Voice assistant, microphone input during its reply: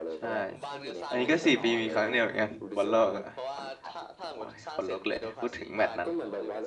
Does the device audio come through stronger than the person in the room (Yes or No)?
No